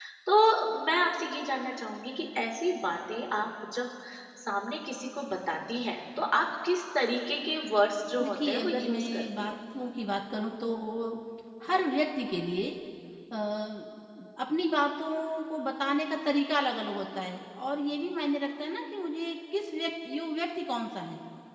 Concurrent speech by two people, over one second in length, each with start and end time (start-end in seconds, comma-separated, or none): 8.2-9.5